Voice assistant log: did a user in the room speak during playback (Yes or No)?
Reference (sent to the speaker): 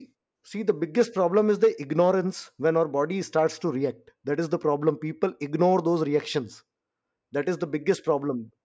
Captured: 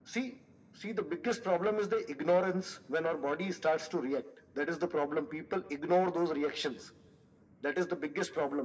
No